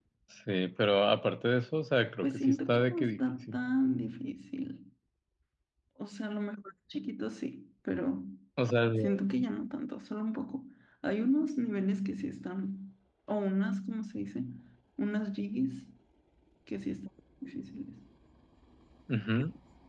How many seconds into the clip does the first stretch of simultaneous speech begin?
2.2 s

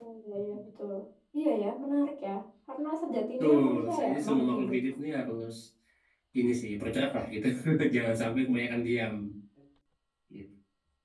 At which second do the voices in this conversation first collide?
3.4 s

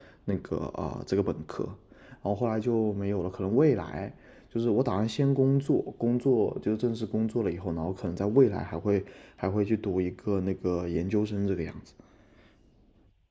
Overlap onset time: none

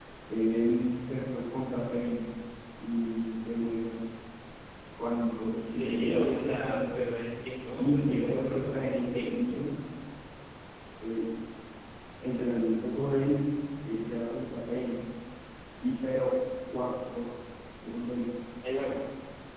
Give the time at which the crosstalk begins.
5.6 s

